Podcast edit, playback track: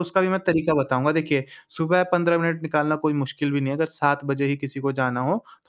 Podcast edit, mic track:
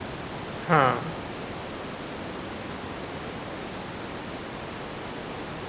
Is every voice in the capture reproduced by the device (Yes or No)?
No